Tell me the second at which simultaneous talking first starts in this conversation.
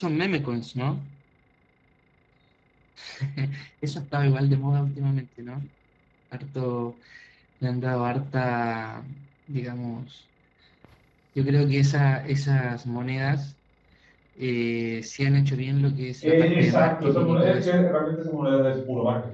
16.2 s

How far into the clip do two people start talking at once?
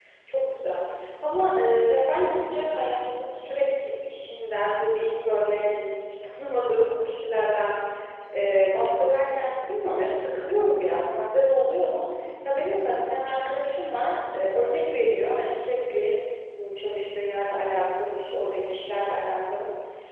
none

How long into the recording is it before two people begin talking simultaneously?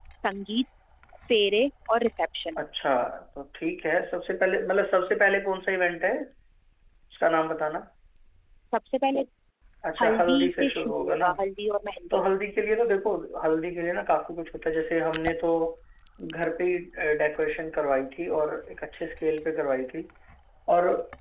10.0 s

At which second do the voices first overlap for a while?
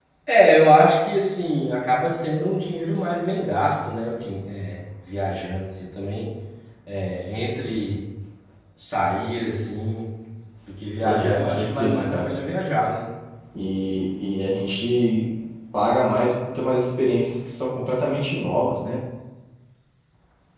11.0 s

